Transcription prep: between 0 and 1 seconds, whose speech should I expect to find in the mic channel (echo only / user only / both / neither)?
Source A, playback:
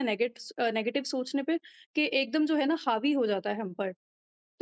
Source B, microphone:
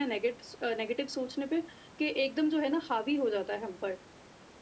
echo only